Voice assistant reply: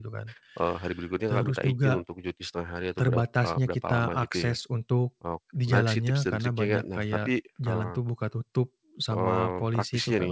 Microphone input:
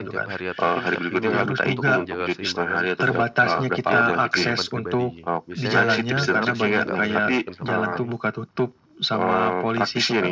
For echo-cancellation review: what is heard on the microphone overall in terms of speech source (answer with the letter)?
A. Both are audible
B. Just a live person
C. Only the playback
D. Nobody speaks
A